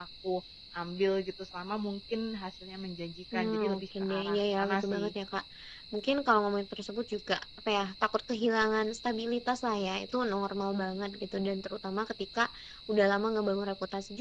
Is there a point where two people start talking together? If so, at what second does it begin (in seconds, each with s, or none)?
3.3 s